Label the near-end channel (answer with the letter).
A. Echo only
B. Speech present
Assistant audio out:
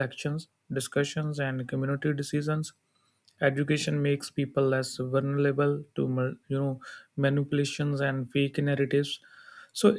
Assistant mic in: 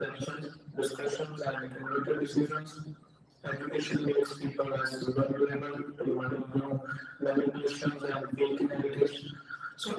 B